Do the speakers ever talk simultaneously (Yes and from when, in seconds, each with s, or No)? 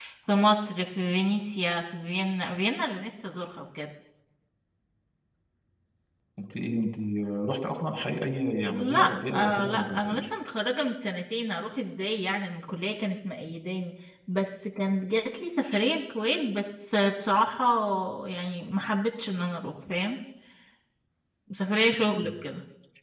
Yes, from 8.7 s